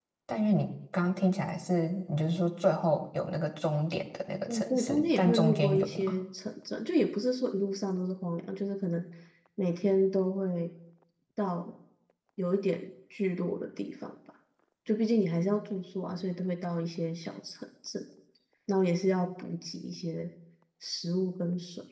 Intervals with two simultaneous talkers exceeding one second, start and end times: 4.5-6.2

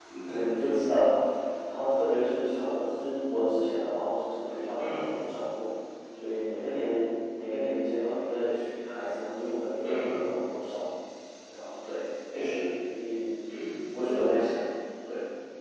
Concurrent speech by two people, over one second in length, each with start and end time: none

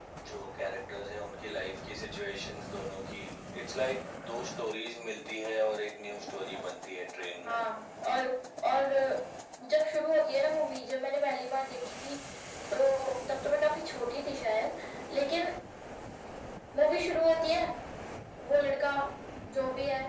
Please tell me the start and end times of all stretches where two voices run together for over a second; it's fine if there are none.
none

